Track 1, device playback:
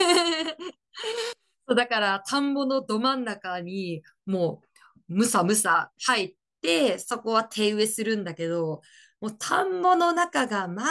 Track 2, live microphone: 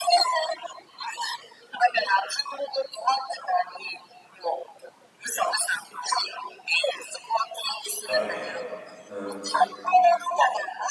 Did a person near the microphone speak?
Yes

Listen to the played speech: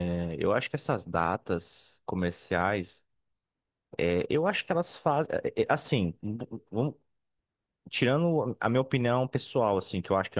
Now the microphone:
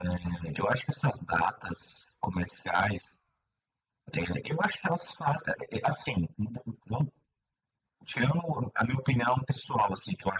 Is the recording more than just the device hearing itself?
No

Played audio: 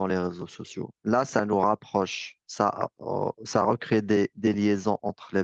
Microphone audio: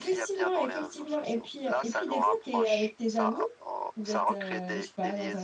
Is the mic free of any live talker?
No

